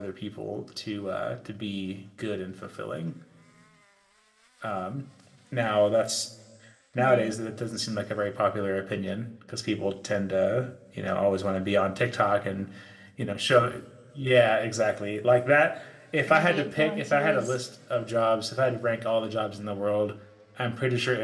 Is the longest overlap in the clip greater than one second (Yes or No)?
Yes